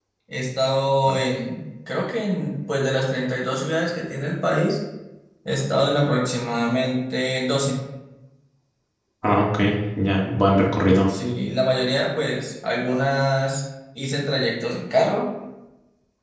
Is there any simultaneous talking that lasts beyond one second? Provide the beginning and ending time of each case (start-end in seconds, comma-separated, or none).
none